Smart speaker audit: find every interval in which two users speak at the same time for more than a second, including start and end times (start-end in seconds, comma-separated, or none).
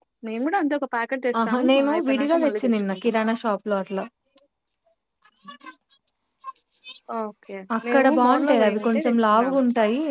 1.5-3.1, 7.8-9.6